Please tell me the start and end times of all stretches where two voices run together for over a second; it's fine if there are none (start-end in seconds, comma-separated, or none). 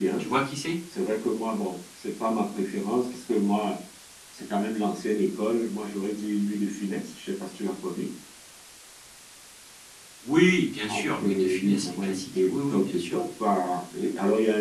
10.8-13.2